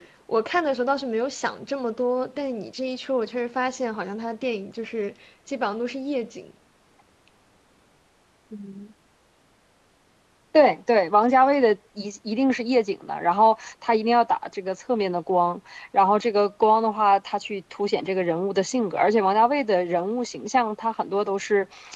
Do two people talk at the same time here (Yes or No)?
No